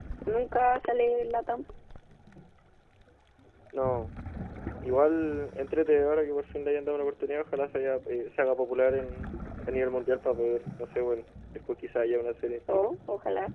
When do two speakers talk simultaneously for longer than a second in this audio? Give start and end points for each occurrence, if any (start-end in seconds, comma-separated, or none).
none